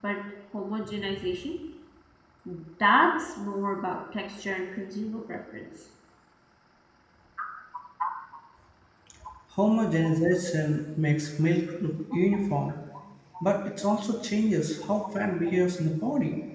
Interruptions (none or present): none